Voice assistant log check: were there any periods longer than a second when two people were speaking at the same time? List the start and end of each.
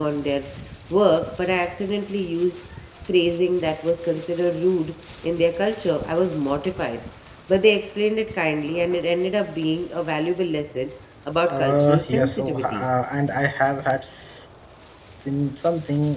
11.5-12.8

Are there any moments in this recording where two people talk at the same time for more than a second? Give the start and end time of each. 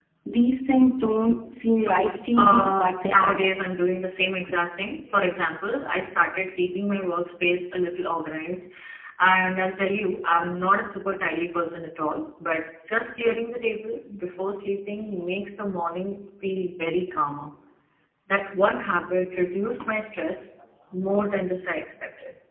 1.8-3.5

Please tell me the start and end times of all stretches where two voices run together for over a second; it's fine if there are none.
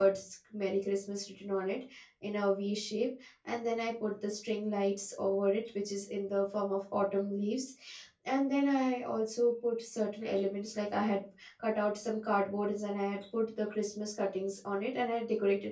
none

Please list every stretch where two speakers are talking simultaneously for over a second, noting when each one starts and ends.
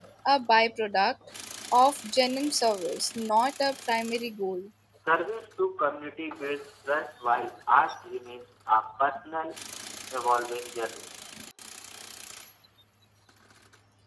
none

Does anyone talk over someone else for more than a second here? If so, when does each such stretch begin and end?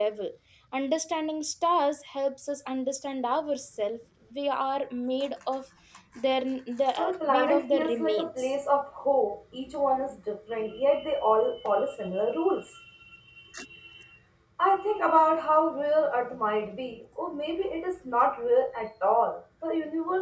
7.0-8.5

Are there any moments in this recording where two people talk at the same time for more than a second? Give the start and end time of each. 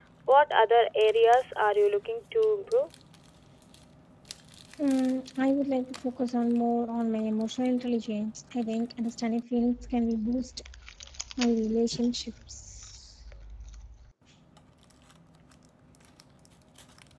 none

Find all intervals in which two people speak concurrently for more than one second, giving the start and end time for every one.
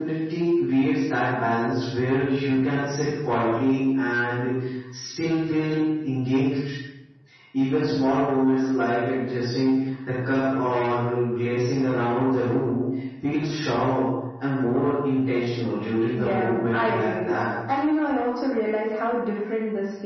16.1-17.4

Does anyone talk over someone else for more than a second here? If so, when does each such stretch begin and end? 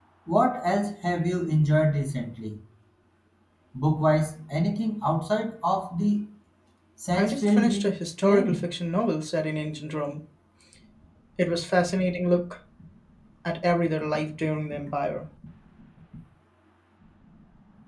7.2-8.6

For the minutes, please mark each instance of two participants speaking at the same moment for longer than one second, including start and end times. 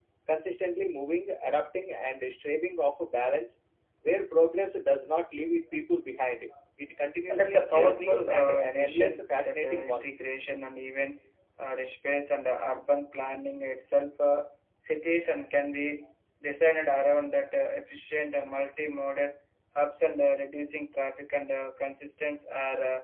7.3-10.1

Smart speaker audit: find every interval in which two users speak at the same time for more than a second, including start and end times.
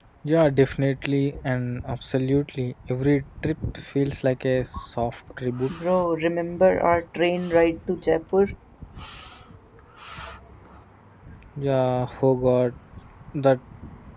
none

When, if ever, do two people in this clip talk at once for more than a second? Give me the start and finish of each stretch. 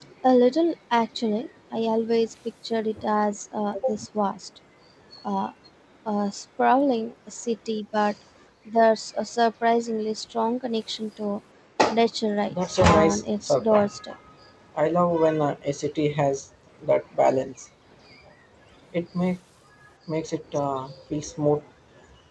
12.5-14.0

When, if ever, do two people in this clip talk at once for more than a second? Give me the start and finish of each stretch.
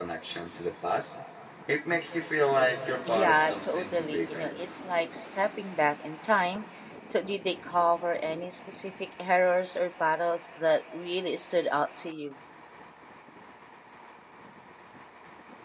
3.1-4.5

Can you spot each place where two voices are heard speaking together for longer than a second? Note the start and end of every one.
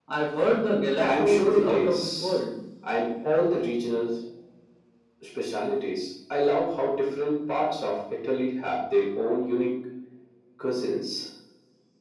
1.0-2.4

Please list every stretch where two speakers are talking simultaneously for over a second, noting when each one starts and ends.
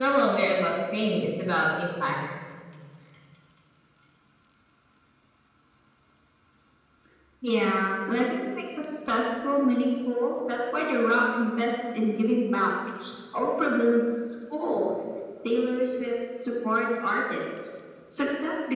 none

